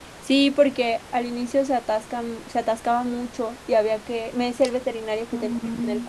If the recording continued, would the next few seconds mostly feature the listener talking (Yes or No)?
No